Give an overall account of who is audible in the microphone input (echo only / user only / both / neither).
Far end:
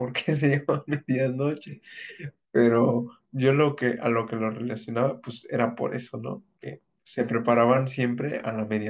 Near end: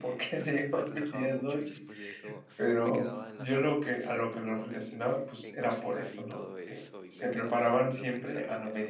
both